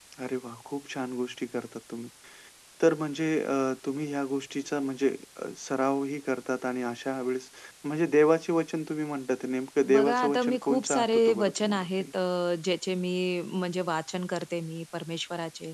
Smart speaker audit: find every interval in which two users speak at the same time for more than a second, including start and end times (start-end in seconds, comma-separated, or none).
9.9-12.0